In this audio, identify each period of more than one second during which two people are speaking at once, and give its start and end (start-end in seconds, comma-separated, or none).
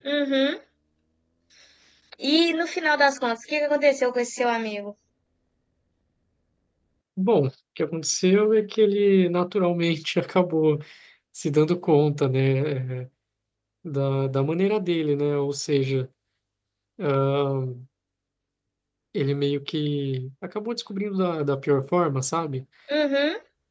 none